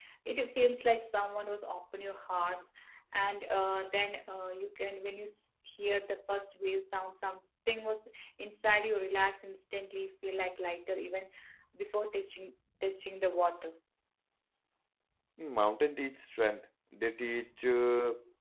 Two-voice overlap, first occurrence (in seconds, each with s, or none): none